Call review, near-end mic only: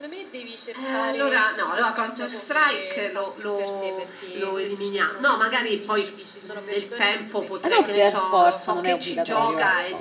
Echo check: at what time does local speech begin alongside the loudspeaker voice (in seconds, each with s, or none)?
7.6 s